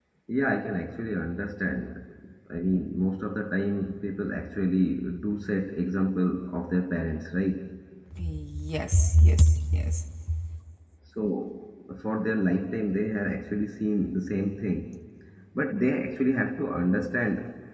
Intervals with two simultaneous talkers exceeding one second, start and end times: none

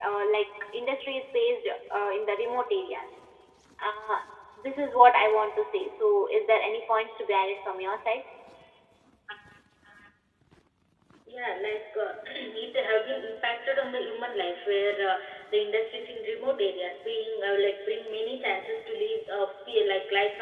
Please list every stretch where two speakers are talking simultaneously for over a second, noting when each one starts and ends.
none

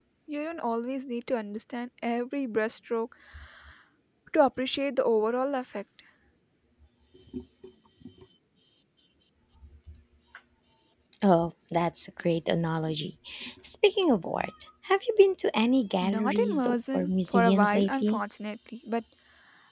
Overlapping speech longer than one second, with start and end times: 16.0-18.2

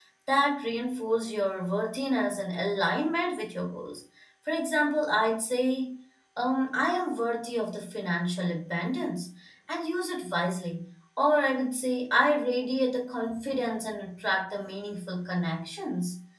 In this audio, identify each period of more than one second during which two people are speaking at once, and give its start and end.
none

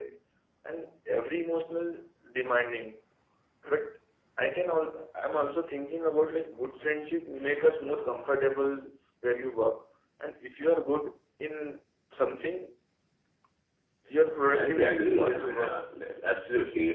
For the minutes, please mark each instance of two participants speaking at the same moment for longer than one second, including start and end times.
14.5-15.8

